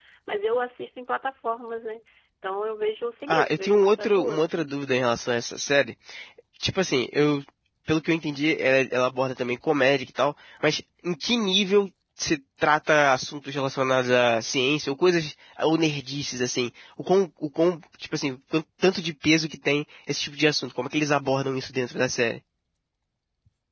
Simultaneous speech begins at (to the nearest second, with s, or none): 3 s